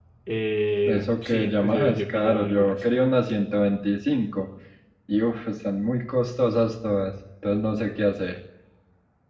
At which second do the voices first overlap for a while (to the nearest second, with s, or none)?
1 s